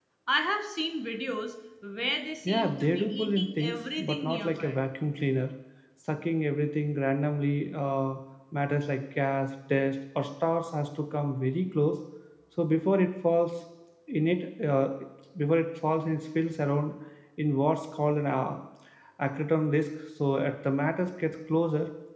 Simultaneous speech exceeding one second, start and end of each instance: 2.5-4.8

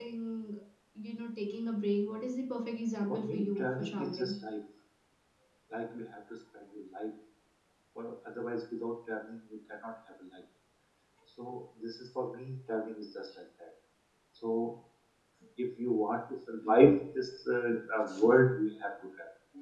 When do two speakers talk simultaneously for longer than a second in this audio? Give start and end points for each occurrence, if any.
3.1-4.4

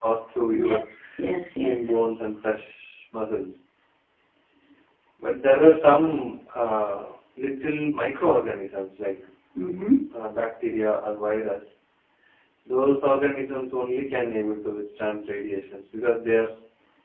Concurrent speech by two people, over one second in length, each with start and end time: none

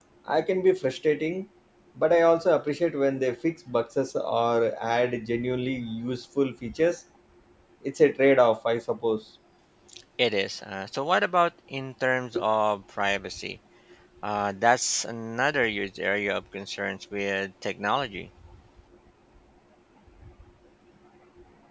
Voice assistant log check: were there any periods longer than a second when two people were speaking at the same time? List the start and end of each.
none

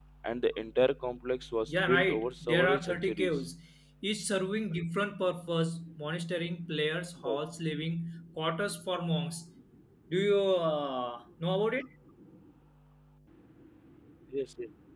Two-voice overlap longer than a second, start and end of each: 1.7-3.4

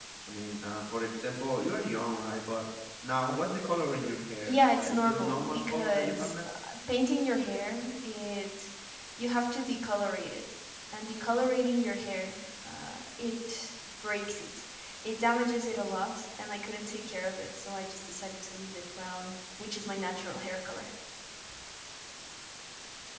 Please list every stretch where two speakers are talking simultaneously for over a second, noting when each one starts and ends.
4.4-6.5

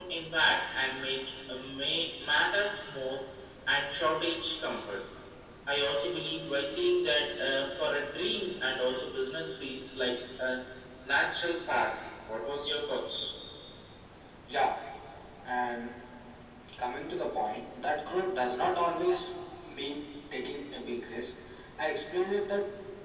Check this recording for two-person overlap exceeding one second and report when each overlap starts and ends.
none

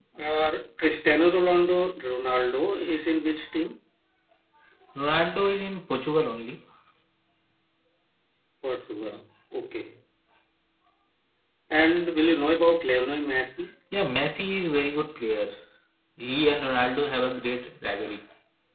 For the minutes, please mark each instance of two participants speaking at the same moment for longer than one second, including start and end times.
none

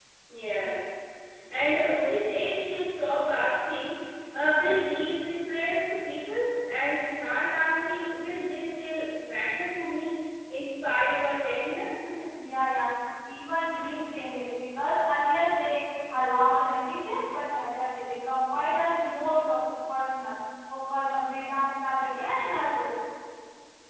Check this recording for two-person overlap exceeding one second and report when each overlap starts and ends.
none

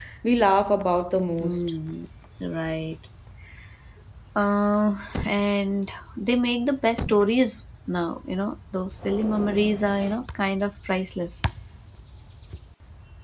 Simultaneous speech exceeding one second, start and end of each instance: none

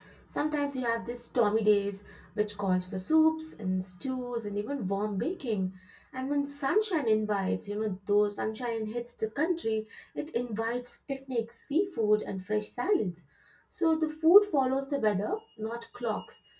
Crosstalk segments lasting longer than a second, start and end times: none

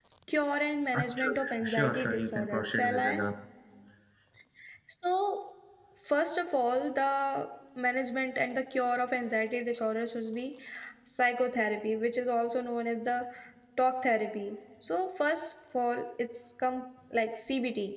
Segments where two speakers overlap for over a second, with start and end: 0.9-3.2

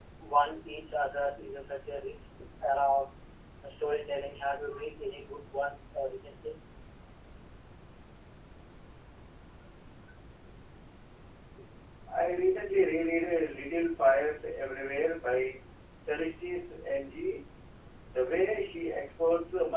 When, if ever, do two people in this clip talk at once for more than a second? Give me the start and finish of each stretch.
none

